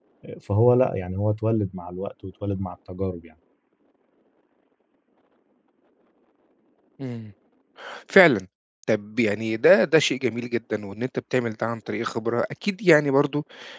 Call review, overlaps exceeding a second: none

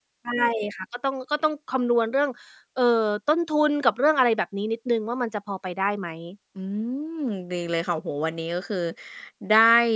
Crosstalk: none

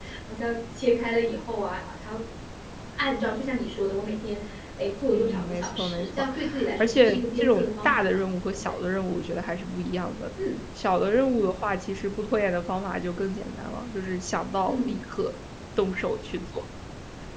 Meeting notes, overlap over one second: present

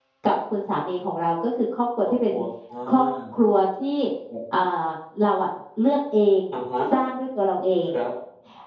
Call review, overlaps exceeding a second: none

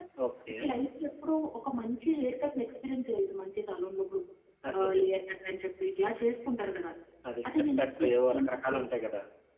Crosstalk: present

